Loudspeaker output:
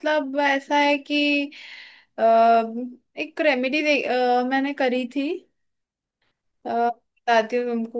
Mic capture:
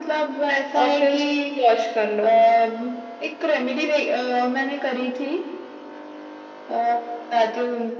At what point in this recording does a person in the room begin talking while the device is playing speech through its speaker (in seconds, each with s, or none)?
0.8 s